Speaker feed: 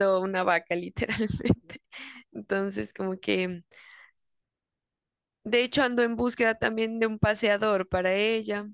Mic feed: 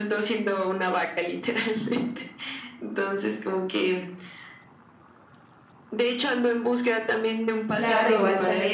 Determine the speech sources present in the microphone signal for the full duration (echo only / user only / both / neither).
both